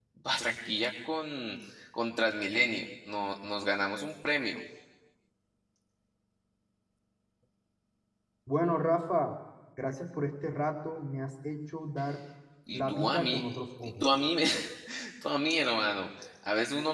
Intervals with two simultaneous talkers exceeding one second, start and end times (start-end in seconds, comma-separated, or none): 12.7-14.1